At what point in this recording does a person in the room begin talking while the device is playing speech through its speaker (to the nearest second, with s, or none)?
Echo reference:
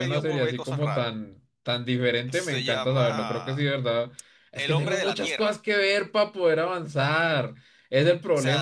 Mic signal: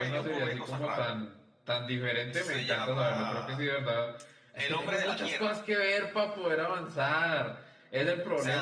none